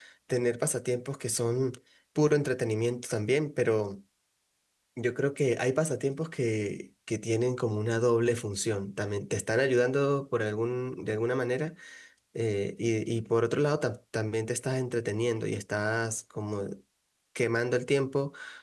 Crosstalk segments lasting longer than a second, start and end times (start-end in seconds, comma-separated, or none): none